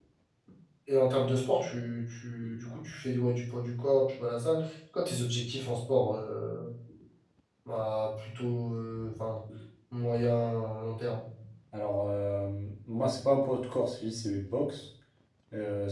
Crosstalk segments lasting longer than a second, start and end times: none

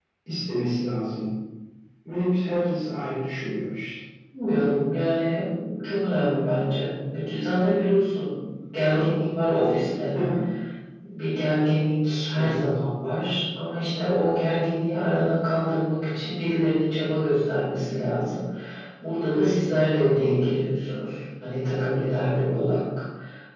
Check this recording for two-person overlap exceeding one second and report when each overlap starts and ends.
none

